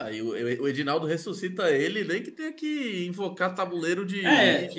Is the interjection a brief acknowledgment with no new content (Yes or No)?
No